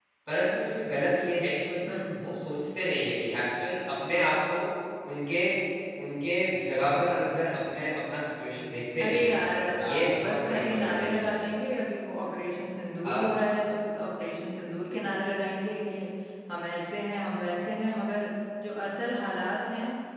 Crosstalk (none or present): present